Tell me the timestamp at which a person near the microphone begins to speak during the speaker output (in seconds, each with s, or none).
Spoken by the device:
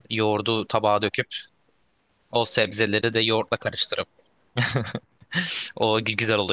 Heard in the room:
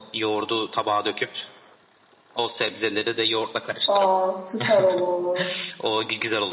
3.9 s